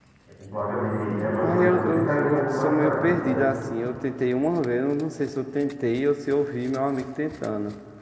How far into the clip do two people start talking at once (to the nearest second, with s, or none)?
1 s